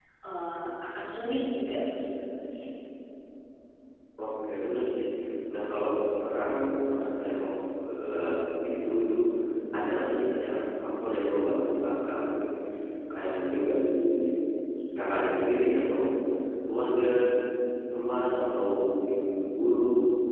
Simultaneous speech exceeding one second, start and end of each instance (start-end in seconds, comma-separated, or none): none